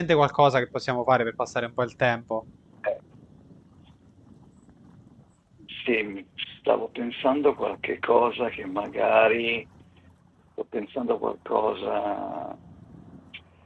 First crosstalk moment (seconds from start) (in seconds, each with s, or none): none